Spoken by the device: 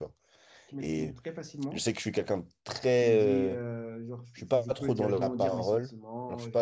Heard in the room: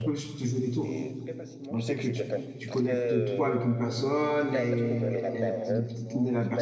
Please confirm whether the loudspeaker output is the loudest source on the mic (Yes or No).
No